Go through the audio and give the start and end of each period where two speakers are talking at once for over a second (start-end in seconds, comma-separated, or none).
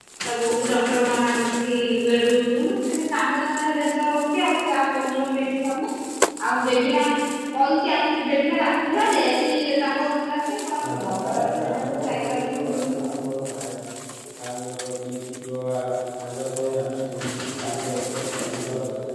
10.9-13.2